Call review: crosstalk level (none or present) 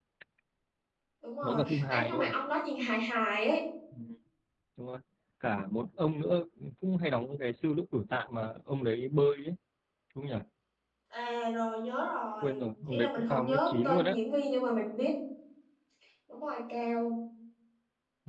present